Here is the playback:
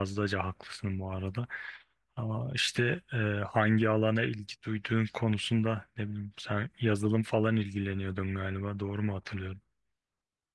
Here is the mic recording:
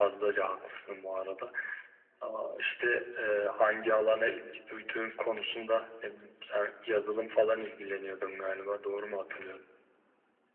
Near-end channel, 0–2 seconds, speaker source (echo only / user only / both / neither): echo only